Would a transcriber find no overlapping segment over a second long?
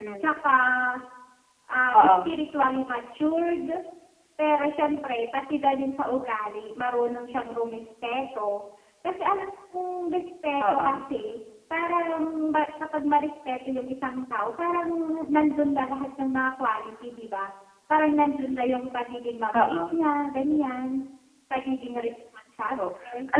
Yes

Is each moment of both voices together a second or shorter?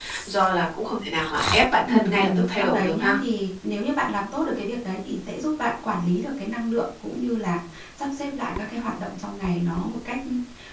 No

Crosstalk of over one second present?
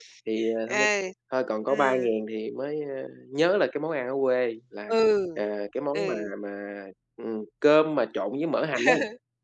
No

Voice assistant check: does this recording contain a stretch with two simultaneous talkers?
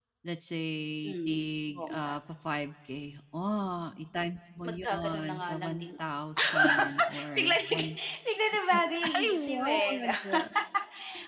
Yes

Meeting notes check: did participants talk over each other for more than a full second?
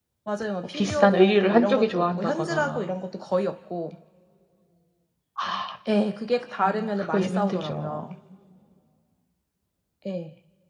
Yes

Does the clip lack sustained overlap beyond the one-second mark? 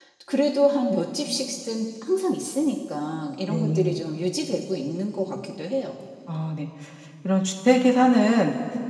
Yes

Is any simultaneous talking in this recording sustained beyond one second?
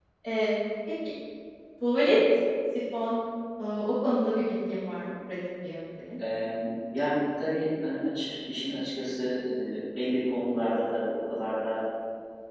No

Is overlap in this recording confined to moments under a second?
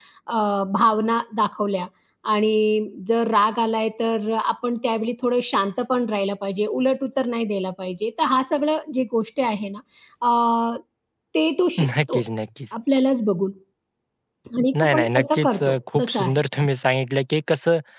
No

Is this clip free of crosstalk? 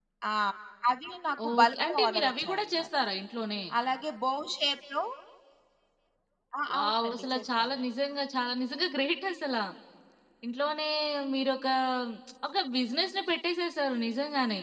No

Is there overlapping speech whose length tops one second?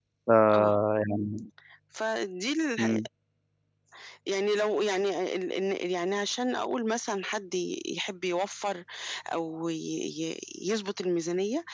No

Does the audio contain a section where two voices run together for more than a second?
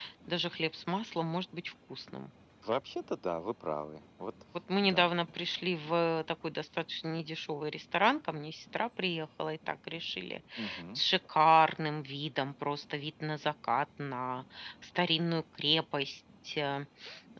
No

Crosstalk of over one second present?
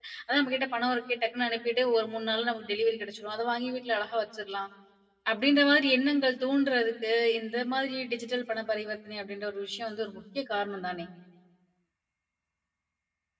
No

